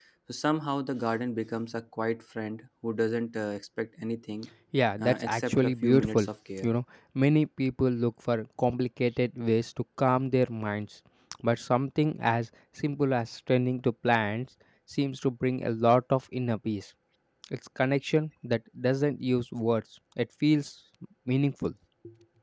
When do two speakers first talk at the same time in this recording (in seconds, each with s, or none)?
5.0 s